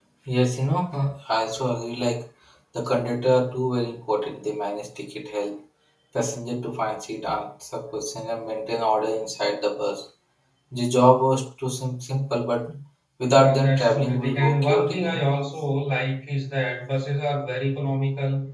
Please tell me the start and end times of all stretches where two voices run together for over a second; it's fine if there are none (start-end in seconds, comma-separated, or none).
13.3-15.2